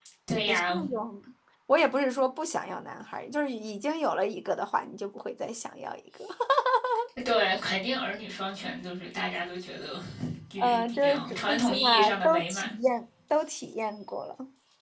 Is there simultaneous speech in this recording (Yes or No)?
Yes